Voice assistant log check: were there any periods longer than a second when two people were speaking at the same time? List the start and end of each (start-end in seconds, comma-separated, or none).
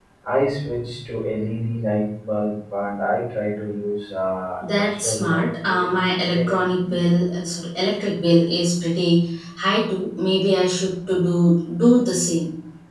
4.7-6.5